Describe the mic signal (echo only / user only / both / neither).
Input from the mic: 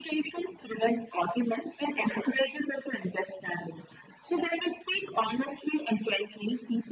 echo only